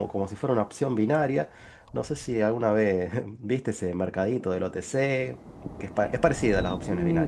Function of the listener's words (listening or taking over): taking over